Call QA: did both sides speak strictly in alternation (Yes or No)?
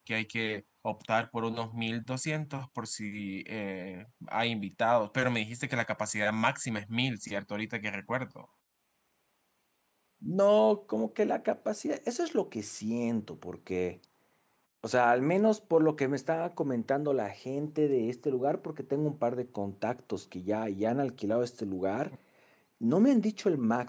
Yes